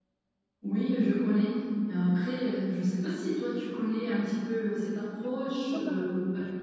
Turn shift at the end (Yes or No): Yes